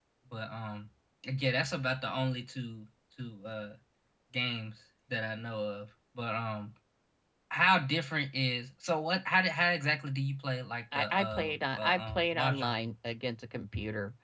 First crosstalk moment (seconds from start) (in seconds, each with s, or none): 10.9 s